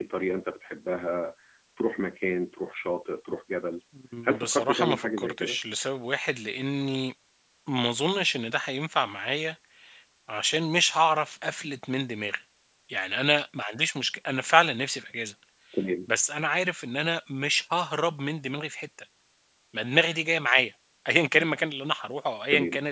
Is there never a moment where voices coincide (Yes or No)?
No